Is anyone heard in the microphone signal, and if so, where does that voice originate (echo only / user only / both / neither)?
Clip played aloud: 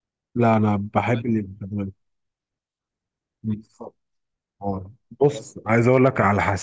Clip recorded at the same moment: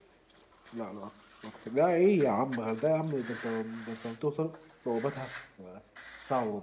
user only